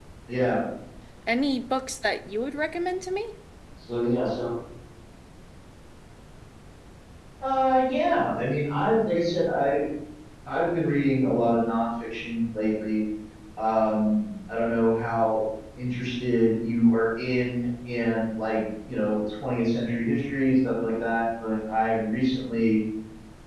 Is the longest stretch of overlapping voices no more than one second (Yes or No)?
Yes